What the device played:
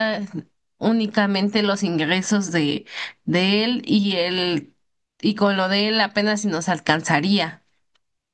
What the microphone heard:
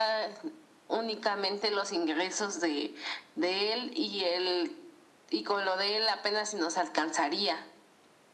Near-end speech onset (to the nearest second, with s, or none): none